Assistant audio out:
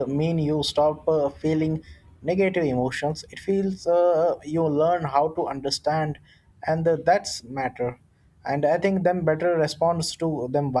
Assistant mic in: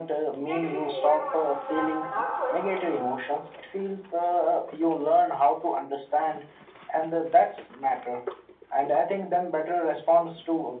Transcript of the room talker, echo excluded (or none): yet we hold on to them without questioning.